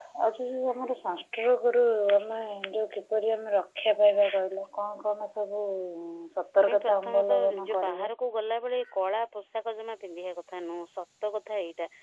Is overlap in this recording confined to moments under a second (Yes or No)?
No